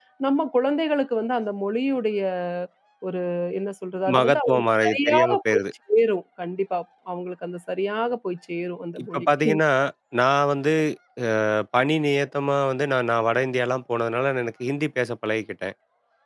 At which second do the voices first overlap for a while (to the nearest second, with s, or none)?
4 s